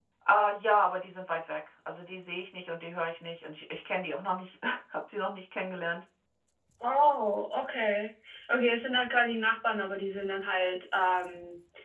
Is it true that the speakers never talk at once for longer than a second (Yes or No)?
Yes